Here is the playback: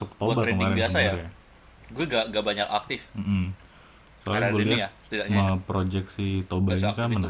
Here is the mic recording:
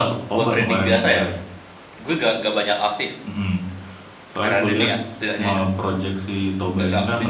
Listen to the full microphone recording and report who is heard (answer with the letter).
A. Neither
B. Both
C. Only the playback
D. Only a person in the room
C